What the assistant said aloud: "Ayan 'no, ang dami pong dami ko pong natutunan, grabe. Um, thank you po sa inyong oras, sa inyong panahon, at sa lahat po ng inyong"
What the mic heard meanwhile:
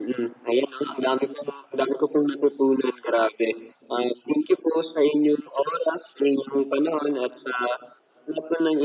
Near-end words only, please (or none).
none